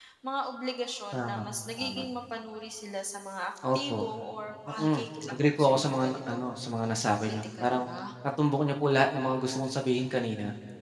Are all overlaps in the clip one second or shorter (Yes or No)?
No